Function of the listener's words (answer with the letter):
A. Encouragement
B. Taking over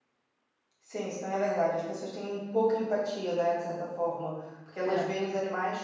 A